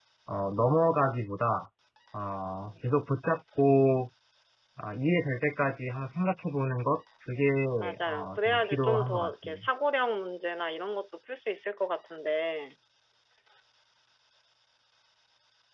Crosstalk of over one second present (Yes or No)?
Yes